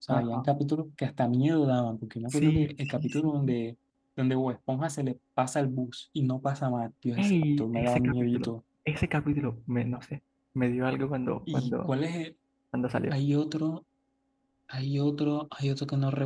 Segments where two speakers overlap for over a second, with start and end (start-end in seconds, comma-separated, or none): 2.3-3.6, 7.2-8.5